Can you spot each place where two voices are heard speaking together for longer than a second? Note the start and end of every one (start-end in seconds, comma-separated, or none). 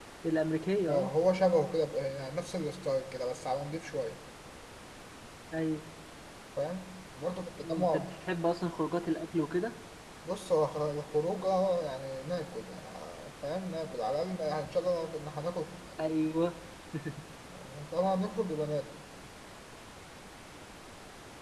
none